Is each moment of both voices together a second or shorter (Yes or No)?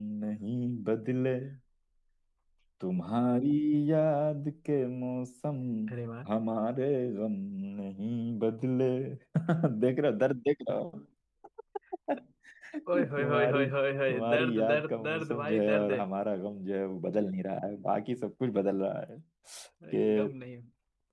No